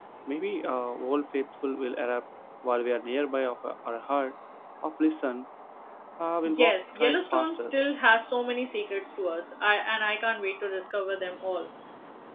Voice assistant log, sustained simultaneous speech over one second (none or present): present